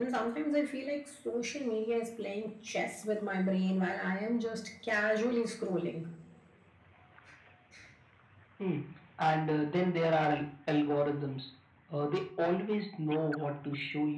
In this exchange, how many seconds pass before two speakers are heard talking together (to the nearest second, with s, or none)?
none